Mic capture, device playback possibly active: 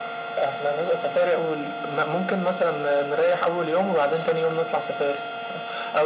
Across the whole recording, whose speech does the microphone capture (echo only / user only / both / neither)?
echo only